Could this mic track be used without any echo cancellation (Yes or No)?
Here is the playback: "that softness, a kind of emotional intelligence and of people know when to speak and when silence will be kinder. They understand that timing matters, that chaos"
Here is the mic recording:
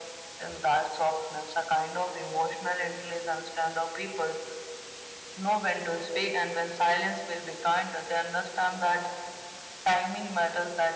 No